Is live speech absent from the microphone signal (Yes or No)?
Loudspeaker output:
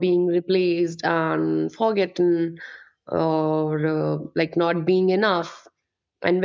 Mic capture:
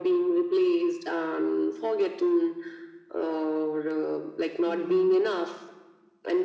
No